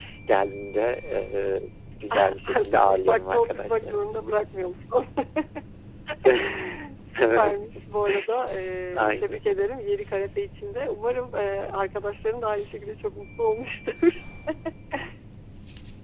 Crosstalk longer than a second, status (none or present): present